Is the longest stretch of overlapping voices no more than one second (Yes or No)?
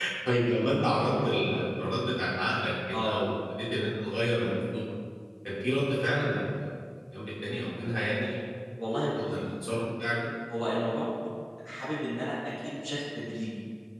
Yes